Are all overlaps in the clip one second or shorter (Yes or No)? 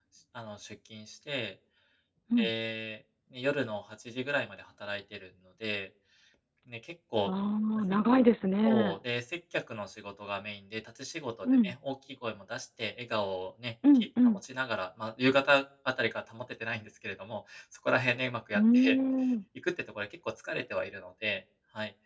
Yes